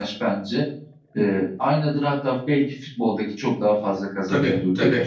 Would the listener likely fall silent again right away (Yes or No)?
No